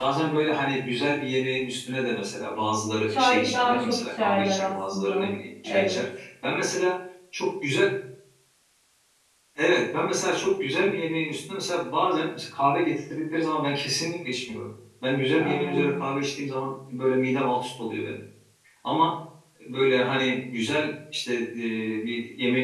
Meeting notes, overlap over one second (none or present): present